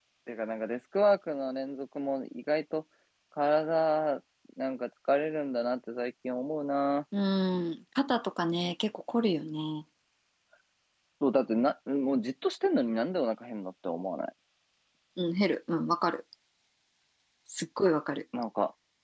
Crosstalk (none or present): none